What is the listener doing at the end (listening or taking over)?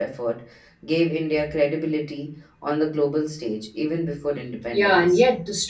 taking over